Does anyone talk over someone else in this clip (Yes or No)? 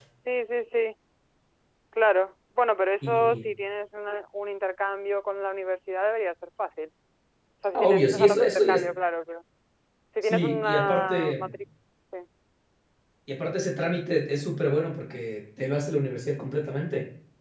Yes